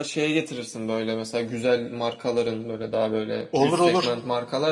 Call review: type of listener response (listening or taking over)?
listening